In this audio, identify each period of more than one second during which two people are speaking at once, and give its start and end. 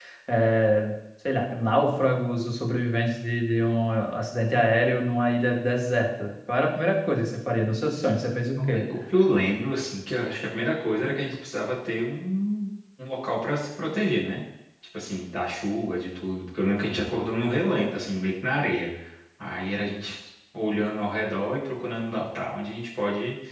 none

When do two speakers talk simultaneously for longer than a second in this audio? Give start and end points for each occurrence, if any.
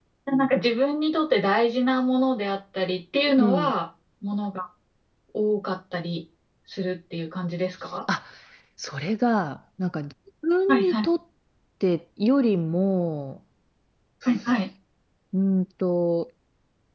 none

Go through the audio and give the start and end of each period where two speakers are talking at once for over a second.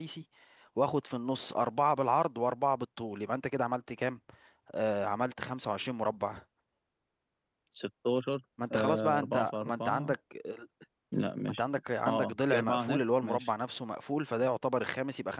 8.7-10.2, 12.1-13.5

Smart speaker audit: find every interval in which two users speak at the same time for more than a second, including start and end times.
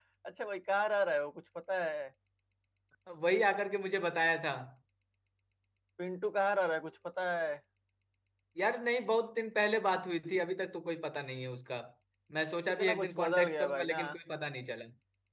12.7-14.0

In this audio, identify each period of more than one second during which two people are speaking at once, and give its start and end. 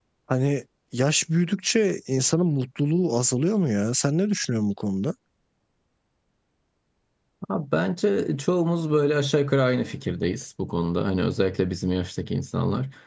none

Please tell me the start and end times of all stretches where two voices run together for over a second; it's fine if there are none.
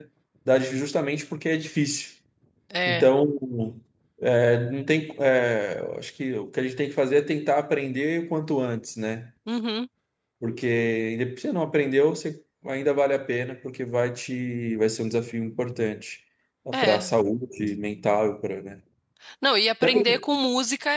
none

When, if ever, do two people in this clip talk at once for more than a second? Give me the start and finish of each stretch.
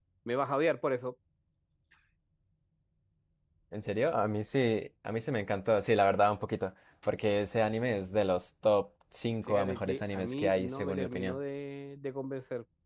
9.5-11.4

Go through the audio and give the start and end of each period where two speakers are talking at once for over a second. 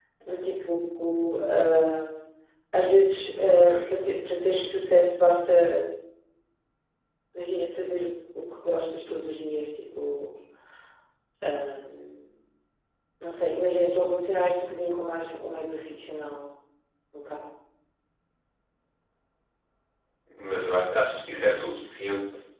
none

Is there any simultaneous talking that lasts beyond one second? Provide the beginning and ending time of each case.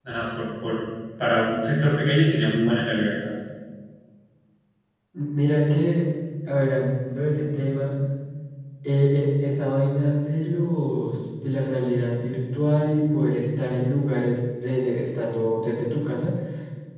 none

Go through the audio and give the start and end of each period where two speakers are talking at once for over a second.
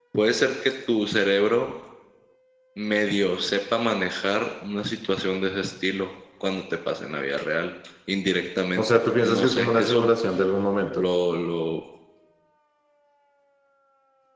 8.8-10.0

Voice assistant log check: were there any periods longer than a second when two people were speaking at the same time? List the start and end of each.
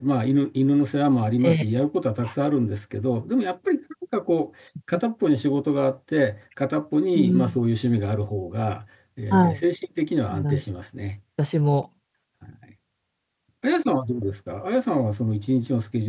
none

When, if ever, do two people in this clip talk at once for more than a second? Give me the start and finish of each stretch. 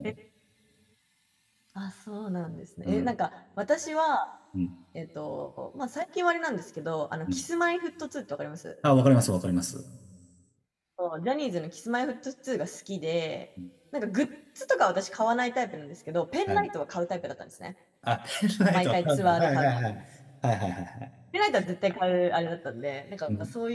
18.7-20.0

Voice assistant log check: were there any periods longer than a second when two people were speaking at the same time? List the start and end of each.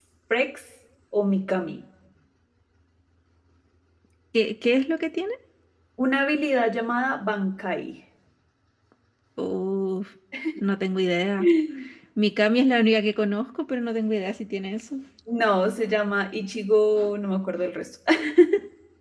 none

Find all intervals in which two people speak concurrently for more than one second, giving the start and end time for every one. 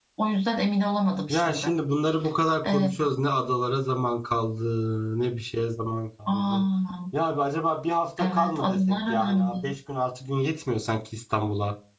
8.2-9.7

